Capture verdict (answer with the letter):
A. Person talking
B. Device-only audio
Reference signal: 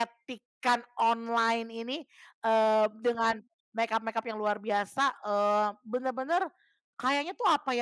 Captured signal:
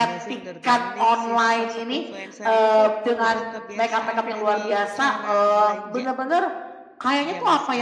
A